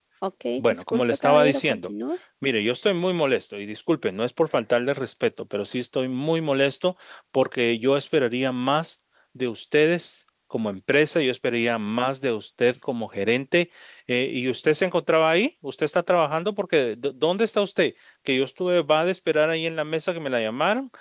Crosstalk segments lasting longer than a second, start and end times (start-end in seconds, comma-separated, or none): 0.6-1.9